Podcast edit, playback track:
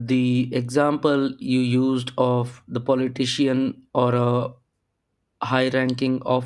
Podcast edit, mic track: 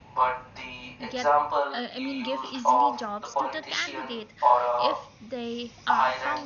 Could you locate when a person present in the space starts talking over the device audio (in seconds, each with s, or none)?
1.1 s